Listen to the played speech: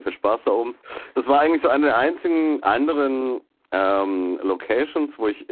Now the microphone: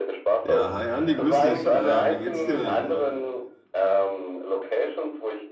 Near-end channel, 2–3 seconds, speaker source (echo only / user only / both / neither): both